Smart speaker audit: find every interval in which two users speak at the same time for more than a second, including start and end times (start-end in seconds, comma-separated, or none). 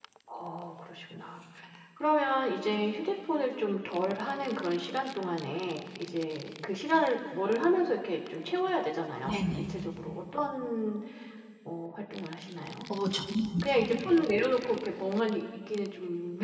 none